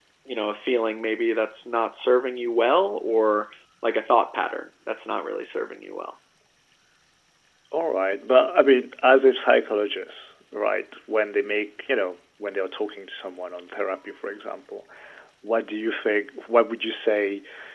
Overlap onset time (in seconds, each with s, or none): none